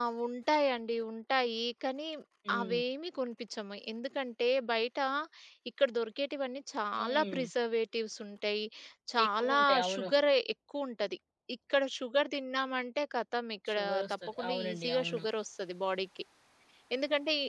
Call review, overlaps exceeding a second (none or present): present